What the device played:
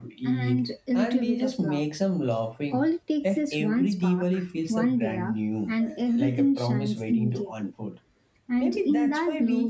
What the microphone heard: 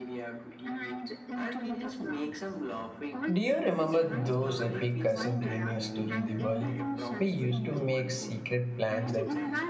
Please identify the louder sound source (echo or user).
user